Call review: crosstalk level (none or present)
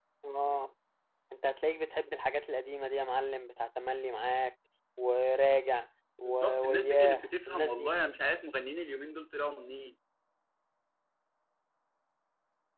present